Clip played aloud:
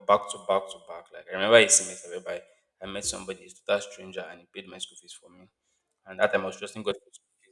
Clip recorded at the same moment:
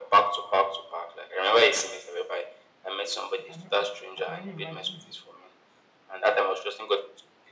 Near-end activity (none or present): present